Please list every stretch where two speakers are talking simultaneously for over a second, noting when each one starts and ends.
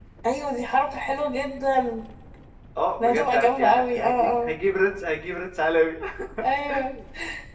3.0-4.5

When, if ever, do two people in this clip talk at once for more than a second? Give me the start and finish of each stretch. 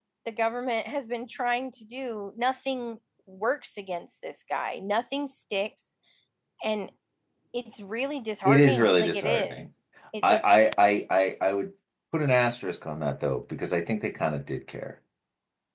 8.4-9.7

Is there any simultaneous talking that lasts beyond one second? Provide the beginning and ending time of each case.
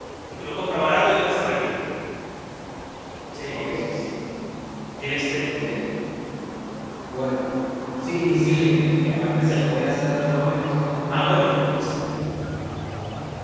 none

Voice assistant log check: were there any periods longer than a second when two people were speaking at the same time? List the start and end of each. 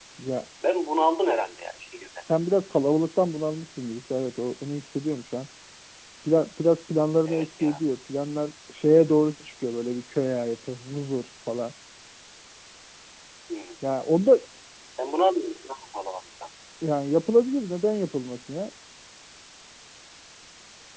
none

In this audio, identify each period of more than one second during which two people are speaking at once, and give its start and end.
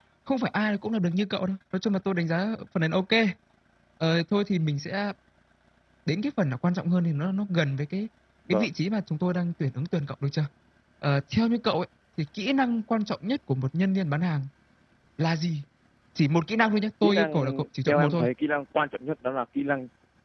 17.0-18.2

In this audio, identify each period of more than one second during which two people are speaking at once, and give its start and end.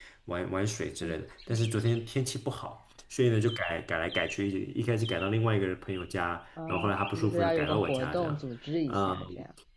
6.7-8.4

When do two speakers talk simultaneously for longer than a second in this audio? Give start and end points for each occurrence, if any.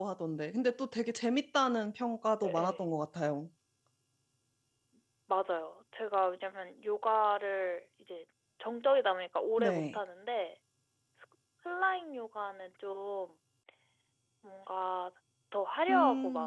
none

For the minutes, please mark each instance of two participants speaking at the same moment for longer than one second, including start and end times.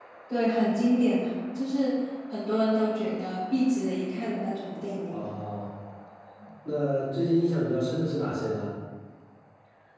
none

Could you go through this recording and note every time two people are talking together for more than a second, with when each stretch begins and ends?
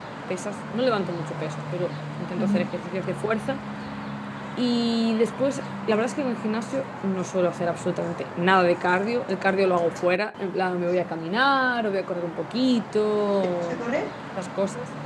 none

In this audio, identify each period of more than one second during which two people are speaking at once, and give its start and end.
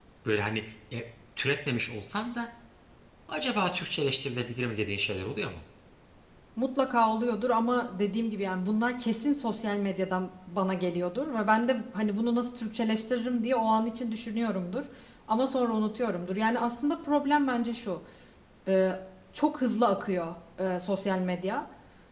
none

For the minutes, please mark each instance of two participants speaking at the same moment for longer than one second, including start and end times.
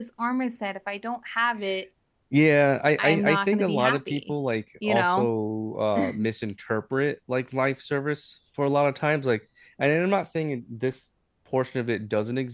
3.0-4.3

